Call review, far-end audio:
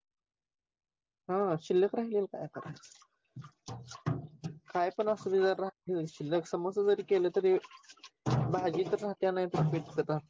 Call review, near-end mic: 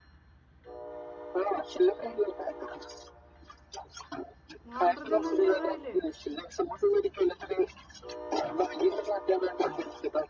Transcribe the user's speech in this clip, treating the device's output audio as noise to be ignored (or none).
मग ऑर्डर देऊन आणि तेवढं राहिले.